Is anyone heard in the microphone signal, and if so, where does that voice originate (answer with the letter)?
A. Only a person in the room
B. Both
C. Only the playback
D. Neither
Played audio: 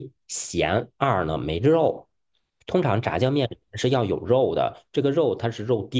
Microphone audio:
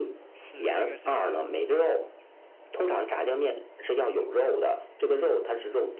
B